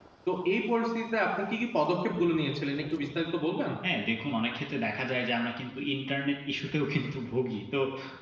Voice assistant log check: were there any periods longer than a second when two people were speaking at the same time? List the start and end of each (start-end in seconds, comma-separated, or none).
none